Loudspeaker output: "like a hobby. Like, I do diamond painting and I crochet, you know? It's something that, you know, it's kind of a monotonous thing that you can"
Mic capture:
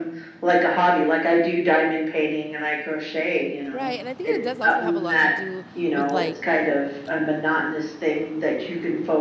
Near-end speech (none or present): present